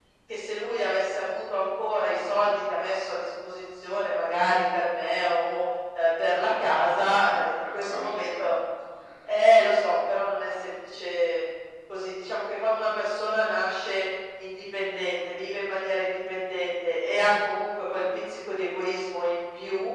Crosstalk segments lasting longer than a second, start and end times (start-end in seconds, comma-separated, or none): 7.0-8.6